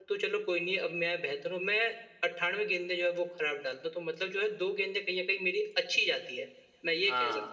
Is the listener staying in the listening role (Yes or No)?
No